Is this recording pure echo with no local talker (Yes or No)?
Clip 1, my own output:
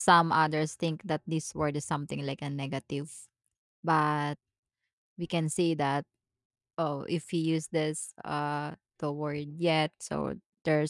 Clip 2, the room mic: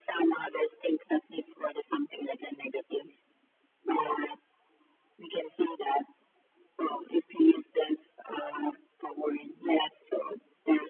Yes